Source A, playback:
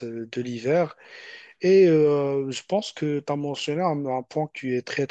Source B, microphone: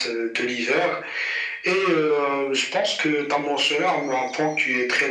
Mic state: echo only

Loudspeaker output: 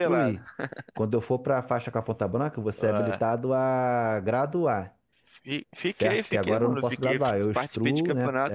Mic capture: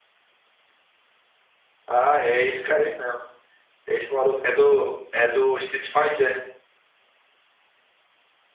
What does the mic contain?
user only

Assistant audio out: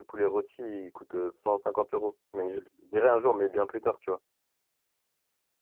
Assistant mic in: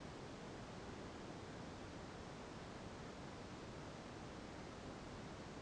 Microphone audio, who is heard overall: neither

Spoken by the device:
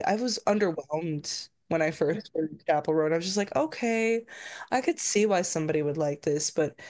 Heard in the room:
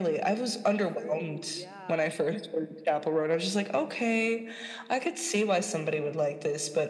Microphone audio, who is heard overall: both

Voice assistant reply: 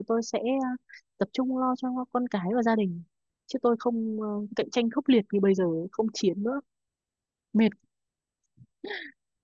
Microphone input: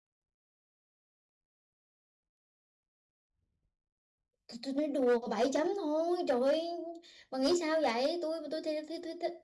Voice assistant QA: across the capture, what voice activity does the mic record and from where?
user only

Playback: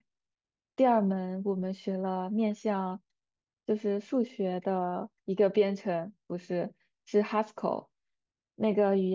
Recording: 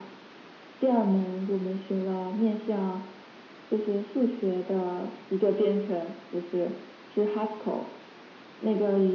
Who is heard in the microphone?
echo only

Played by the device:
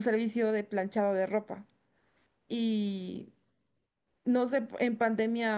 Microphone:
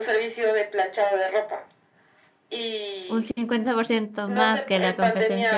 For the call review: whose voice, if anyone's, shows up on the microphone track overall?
both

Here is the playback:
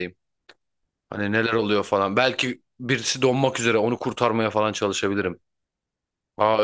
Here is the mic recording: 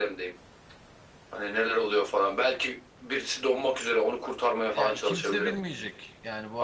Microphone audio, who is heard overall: both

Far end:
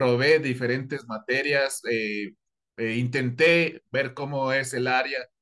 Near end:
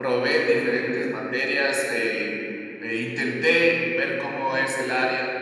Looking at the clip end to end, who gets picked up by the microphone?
echo only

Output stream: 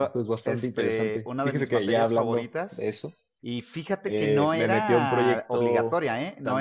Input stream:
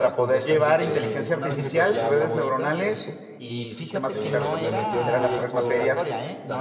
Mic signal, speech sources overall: both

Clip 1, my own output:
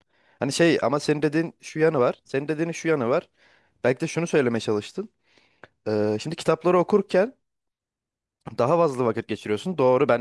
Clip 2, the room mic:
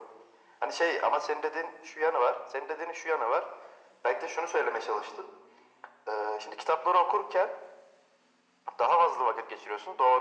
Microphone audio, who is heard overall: echo only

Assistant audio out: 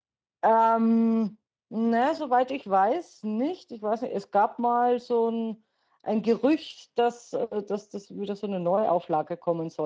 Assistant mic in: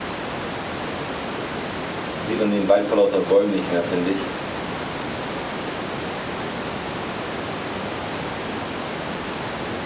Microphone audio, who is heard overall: user only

